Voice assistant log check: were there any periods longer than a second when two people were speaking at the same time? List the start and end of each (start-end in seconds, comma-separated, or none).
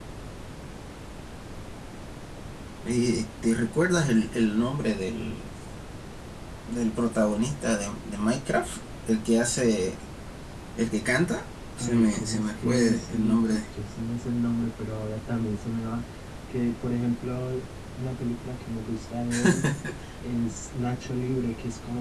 11.8-13.6